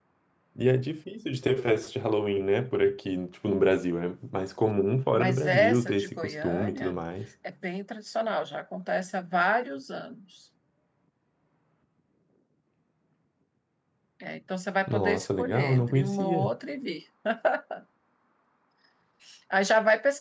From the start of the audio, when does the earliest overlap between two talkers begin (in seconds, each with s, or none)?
5.2 s